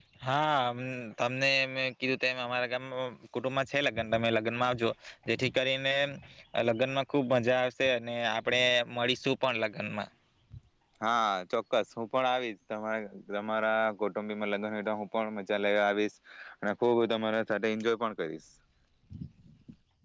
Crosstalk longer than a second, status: none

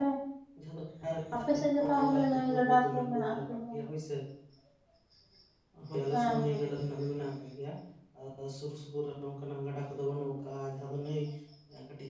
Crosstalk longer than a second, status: present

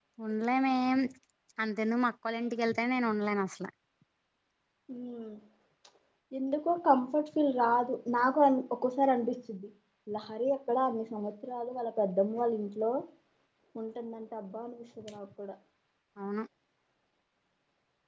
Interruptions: none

